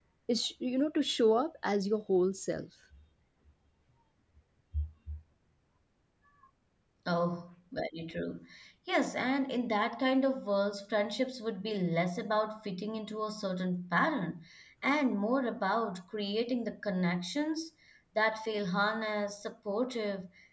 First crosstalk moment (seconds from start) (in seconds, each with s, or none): none